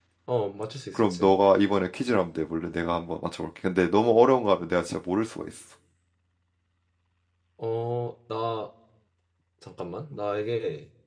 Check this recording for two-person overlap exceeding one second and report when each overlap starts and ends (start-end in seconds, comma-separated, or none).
none